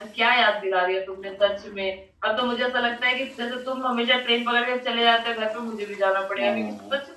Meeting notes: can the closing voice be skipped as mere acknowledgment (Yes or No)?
Yes